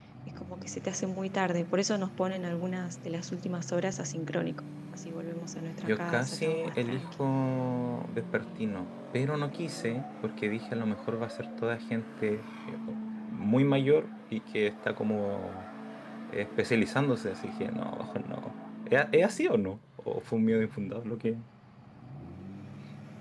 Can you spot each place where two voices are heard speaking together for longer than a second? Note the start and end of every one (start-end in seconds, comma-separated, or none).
5.9-7.2